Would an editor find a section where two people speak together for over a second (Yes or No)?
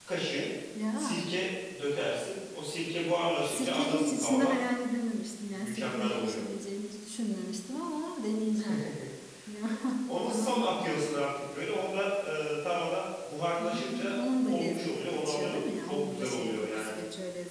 Yes